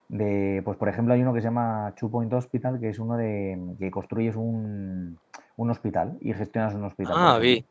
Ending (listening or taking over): taking over